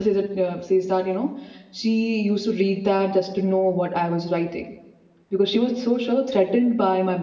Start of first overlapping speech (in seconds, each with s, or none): none